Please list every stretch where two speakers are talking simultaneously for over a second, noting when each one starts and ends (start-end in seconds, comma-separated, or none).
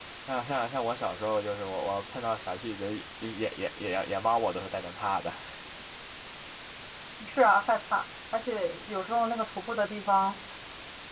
none